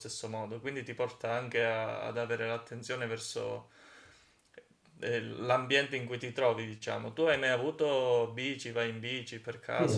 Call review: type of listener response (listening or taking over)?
taking over